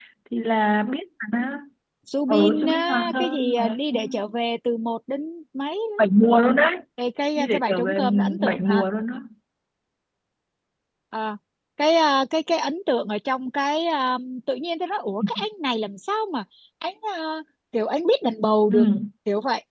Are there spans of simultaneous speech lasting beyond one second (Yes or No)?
Yes